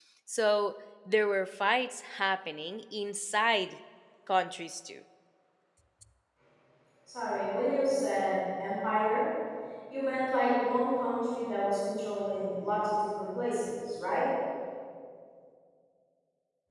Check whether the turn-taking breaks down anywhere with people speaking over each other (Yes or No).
No